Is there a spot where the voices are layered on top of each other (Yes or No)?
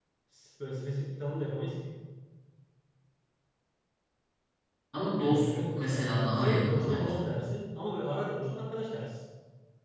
Yes